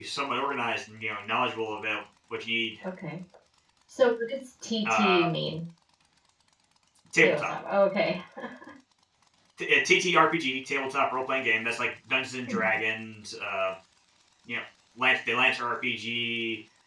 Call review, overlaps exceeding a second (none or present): none